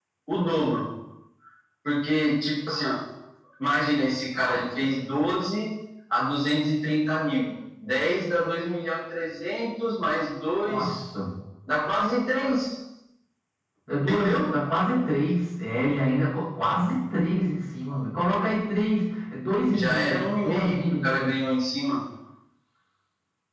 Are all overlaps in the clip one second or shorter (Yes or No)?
No